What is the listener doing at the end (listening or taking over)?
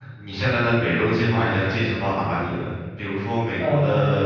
listening